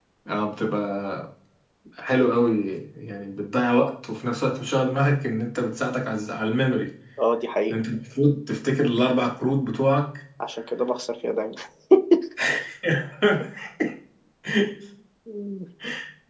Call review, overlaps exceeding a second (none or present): none